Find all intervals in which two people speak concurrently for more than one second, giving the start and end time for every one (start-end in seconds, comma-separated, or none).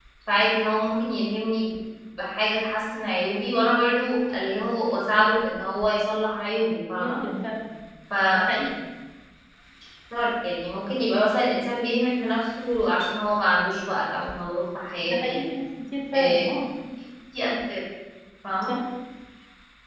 none